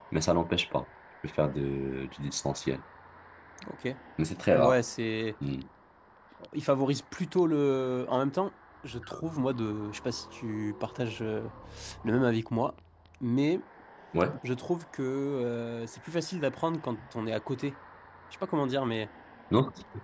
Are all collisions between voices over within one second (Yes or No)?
Yes